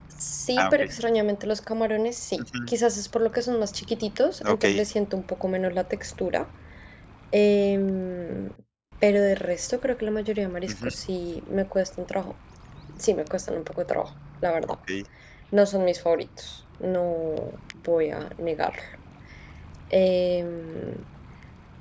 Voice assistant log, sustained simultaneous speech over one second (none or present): none